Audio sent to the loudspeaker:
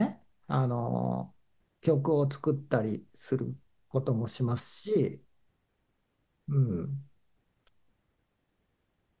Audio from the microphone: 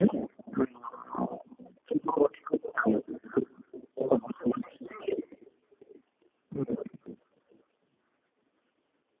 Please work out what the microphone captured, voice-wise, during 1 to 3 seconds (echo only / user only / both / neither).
echo only